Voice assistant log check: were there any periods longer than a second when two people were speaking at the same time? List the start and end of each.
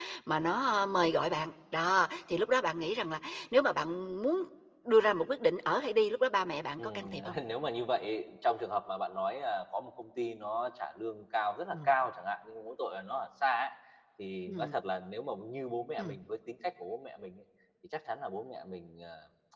none

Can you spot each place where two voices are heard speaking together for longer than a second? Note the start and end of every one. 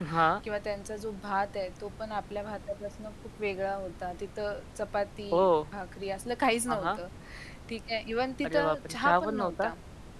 8.4-9.7

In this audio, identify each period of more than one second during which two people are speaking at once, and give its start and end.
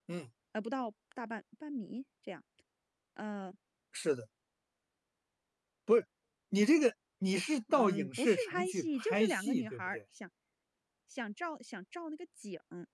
7.7-10.0

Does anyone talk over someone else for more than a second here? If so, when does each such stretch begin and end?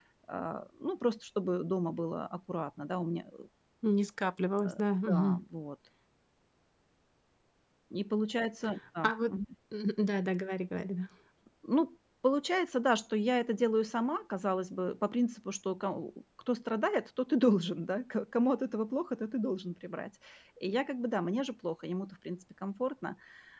none

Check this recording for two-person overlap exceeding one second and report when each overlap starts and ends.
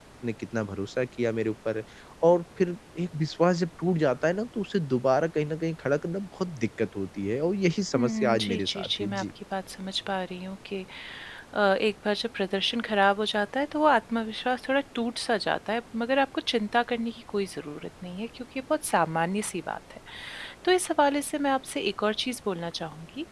7.9-9.2

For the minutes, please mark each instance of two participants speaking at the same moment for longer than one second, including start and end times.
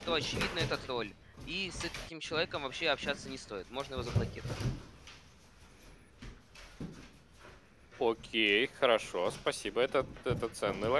none

